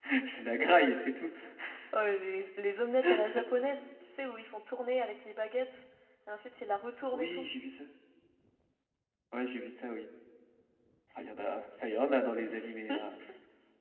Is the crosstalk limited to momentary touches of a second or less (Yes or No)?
Yes